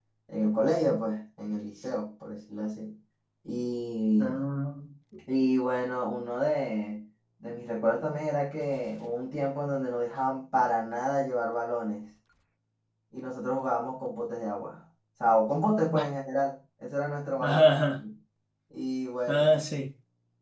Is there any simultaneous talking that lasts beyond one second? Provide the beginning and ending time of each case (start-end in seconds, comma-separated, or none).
none